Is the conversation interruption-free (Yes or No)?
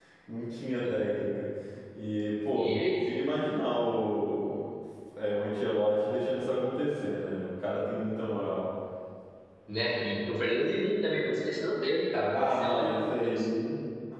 No